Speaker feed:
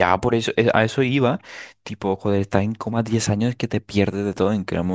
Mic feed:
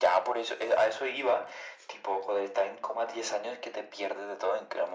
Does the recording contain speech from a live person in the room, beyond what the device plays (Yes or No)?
No